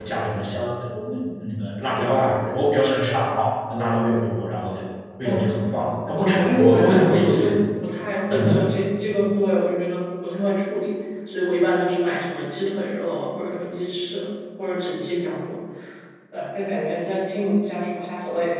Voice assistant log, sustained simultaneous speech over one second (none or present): present